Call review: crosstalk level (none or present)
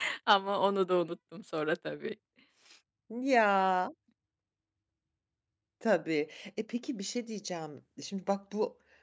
none